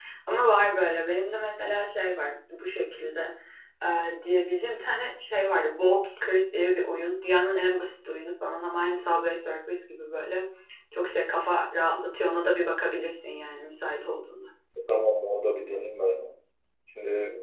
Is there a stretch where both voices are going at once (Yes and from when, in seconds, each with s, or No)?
No